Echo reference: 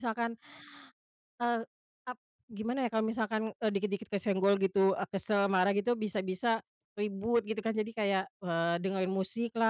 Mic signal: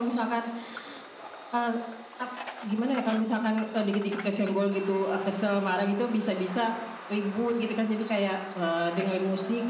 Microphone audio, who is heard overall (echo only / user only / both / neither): echo only